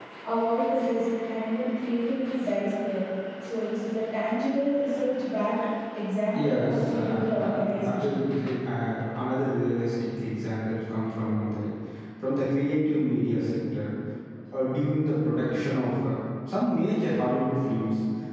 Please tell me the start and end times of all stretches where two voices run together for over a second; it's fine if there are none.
6.4-8.2

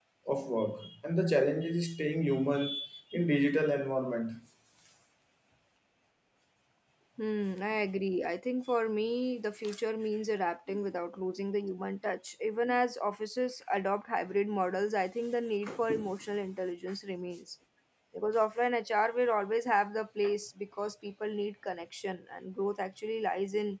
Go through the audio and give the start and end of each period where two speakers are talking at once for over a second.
none

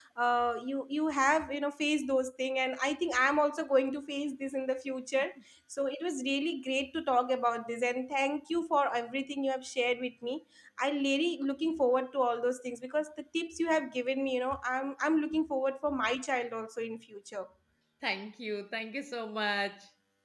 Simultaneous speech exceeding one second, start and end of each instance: none

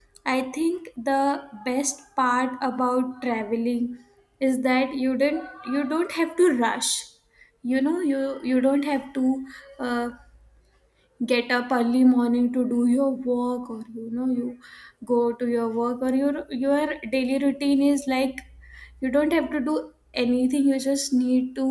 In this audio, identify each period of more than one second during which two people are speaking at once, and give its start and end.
none

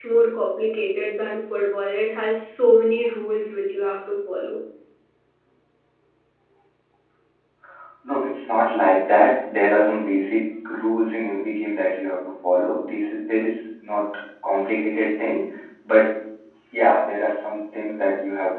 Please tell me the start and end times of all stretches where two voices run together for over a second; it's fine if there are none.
none

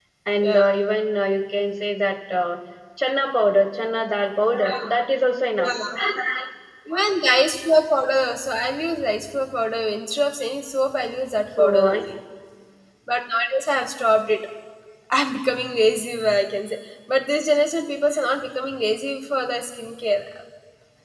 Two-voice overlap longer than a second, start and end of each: none

